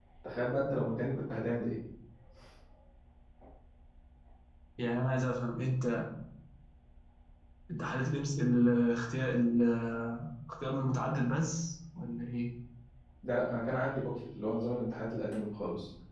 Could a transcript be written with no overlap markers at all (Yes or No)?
Yes